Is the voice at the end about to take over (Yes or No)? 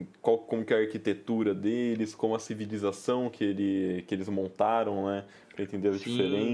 Yes